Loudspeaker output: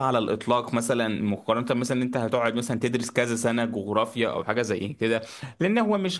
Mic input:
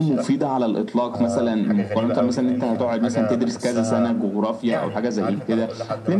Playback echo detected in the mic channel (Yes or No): Yes